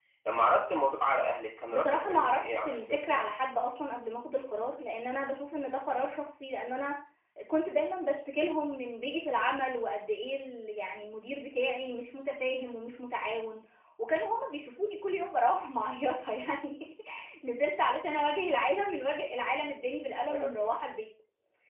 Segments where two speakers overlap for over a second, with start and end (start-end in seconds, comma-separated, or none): 1.7-3.2